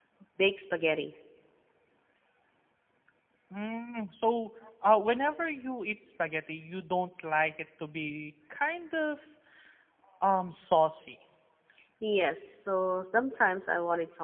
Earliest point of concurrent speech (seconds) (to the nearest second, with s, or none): none